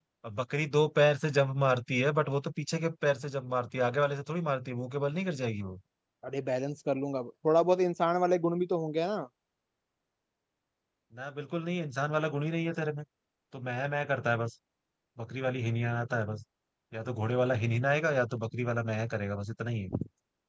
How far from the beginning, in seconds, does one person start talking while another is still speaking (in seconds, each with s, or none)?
none